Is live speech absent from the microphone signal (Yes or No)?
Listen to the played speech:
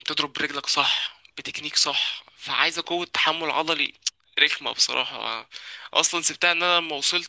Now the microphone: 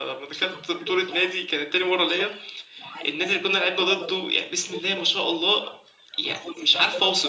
No